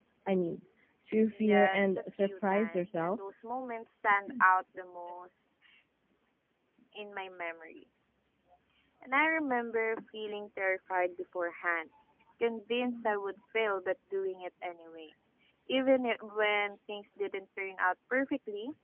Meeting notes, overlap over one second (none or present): present